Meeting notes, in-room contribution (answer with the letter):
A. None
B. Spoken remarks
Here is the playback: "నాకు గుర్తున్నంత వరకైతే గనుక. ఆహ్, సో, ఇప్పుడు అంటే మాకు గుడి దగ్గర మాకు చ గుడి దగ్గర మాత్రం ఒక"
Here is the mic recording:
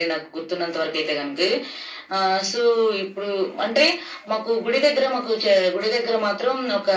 A